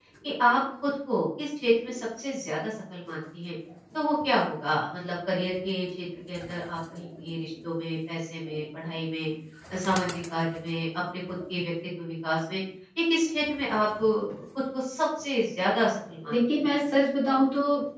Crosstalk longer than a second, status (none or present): none